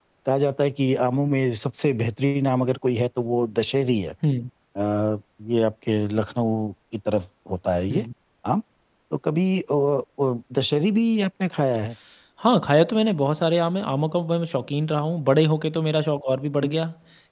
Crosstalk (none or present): none